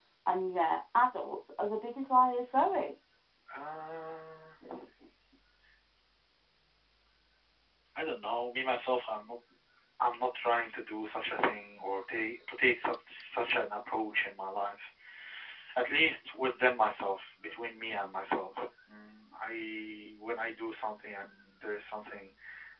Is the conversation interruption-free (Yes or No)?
Yes